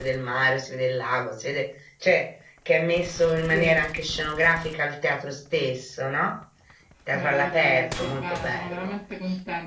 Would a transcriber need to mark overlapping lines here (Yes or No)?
Yes